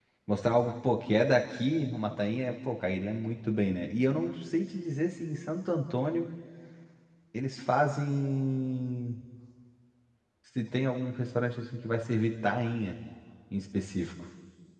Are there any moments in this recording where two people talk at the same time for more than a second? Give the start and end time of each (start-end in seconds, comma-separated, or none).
none